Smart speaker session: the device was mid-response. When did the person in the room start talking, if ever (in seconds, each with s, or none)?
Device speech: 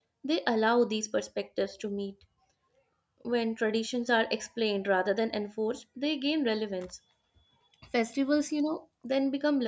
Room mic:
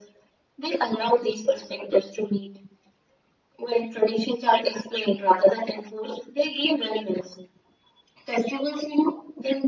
none